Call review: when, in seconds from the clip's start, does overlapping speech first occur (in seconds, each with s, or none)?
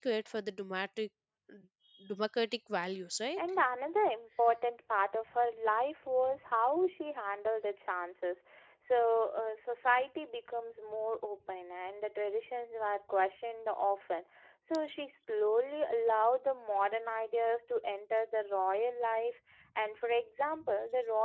none